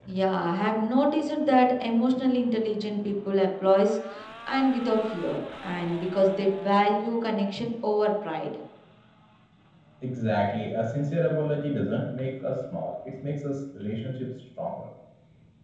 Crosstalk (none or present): none